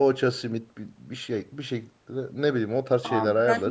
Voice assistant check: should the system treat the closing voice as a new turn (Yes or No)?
Yes